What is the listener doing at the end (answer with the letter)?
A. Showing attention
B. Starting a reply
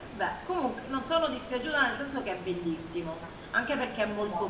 A